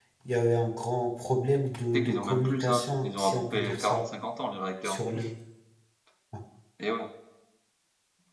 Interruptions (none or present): present